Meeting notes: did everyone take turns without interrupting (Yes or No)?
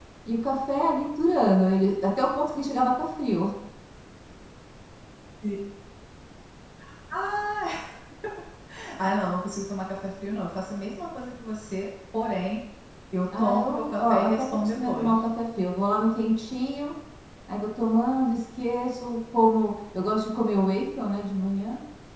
No